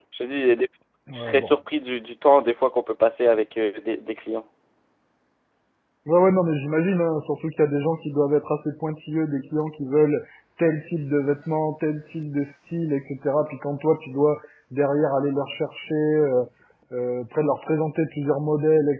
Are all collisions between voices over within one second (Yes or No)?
Yes